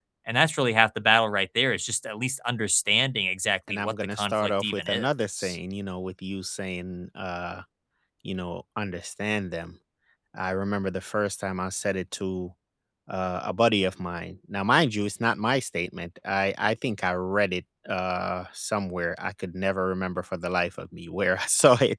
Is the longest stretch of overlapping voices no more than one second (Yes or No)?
No